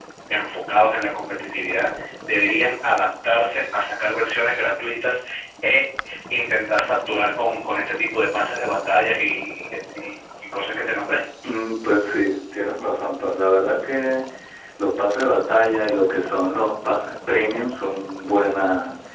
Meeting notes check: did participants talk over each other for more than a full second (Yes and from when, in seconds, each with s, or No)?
No